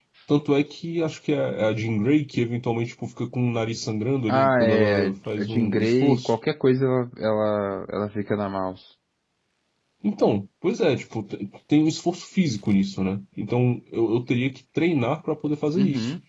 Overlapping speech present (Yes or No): Yes